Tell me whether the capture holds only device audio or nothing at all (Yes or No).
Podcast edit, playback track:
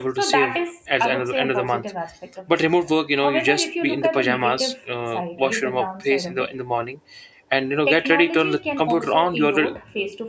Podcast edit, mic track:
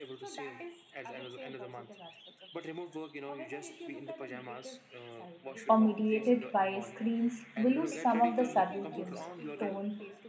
No